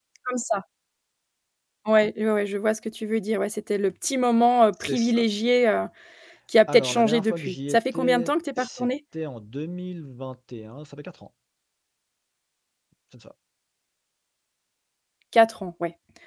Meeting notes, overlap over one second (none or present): present